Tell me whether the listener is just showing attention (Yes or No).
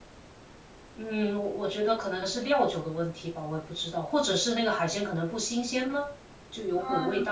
No